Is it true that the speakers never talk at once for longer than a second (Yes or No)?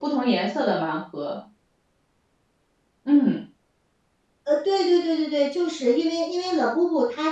Yes